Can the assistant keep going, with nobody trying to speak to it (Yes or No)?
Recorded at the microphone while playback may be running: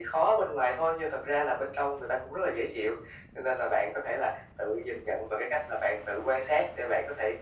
Yes